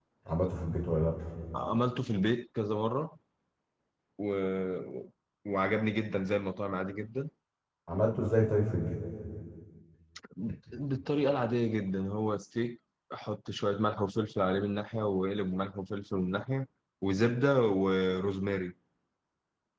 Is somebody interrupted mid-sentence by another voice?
No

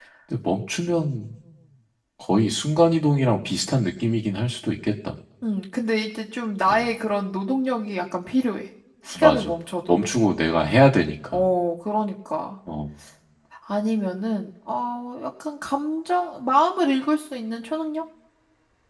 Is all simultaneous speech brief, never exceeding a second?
Yes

